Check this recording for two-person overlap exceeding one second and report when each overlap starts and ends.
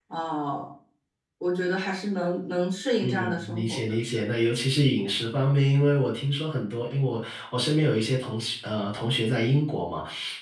3.0-4.2

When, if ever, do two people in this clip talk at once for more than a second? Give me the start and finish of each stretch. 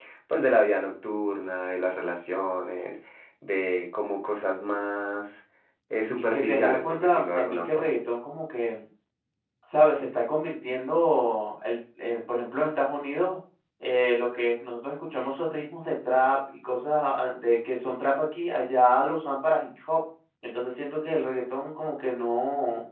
6.2-7.9

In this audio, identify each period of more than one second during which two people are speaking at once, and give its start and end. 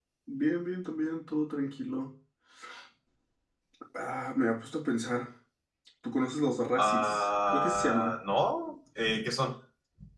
6.8-8.2

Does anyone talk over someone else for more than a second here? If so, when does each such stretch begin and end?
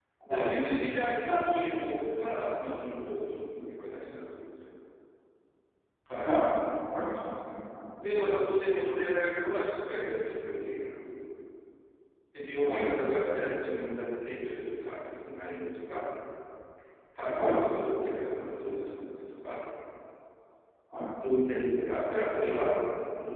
none

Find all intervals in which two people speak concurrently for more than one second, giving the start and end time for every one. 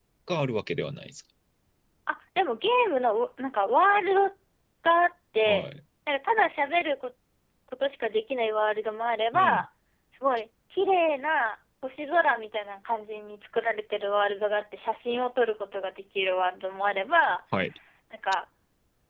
none

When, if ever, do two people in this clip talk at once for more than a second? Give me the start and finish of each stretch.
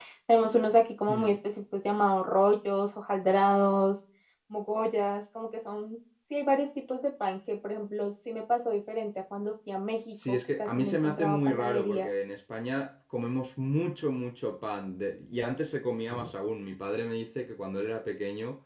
10.1-12.1

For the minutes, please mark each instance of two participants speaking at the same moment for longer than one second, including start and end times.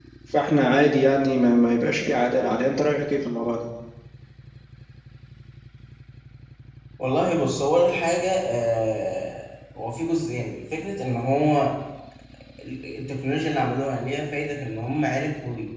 none

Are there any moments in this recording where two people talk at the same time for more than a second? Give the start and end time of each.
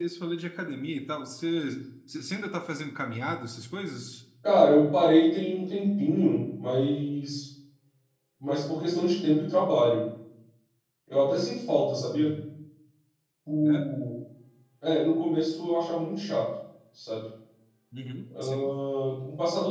none

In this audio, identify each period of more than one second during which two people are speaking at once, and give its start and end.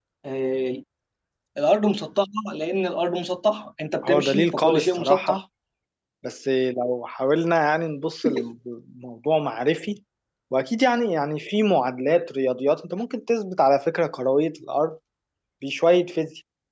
4.1-5.4

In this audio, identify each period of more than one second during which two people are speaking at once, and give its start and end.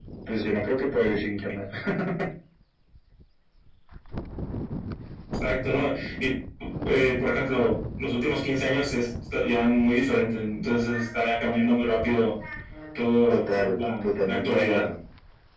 13.3-14.8

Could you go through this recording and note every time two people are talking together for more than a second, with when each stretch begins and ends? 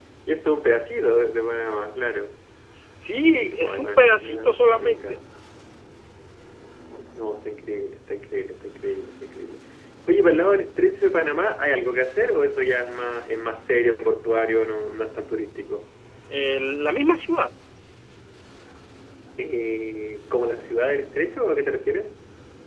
3.3-5.2

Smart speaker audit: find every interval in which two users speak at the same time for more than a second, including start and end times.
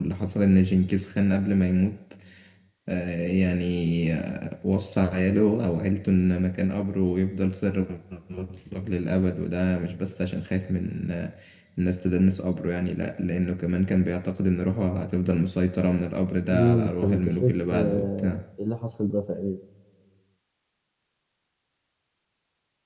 16.5-18.4

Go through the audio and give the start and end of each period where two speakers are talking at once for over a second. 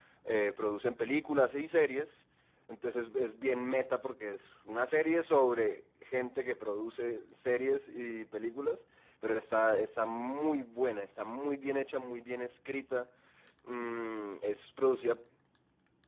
none

